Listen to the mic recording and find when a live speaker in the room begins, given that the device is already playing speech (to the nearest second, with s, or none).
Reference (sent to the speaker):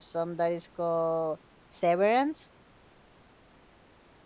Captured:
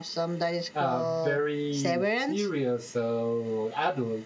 1 s